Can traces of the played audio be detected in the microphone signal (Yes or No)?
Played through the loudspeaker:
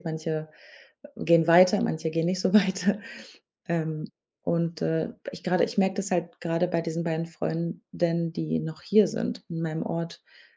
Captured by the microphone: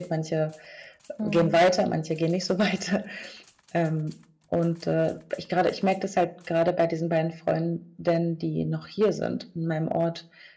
Yes